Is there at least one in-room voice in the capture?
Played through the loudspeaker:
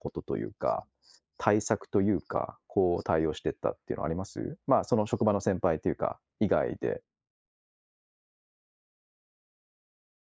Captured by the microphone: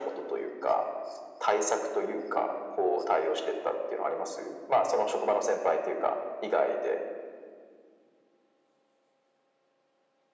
No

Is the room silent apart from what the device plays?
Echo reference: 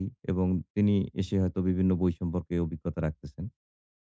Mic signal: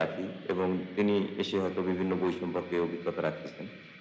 Yes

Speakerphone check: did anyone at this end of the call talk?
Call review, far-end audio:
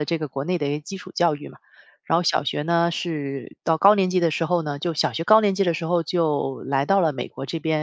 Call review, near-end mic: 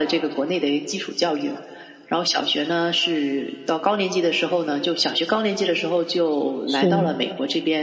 Yes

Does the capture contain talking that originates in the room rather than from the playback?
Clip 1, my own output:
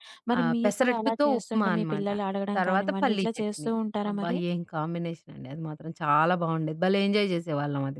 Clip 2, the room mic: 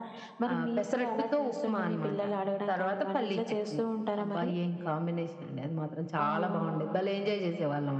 Yes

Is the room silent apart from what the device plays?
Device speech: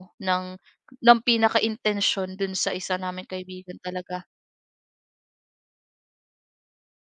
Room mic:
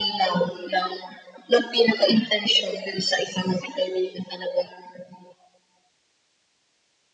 Yes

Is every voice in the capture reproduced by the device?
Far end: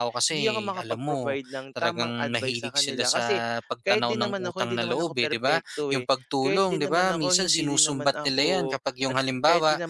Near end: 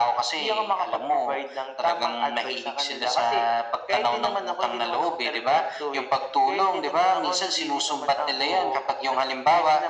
Yes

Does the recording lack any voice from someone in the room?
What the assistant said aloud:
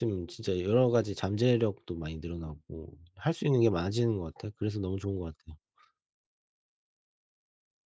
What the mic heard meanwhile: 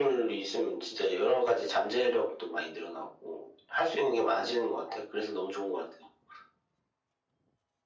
Yes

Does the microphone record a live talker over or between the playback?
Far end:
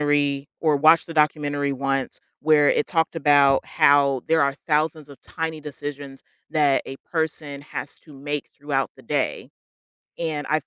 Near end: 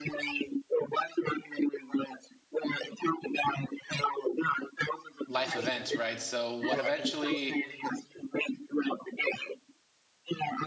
Yes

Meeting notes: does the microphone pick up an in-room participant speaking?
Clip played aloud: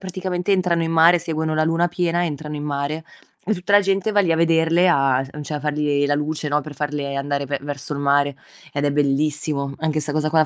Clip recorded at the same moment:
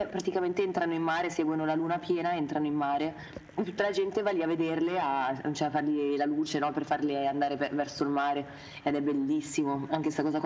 No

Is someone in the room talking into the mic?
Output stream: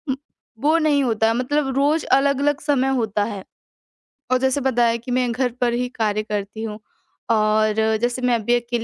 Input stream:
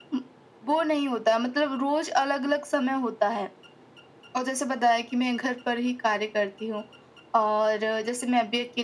No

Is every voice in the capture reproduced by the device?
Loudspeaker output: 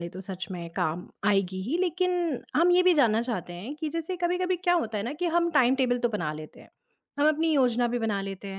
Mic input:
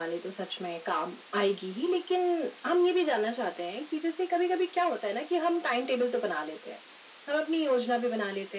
Yes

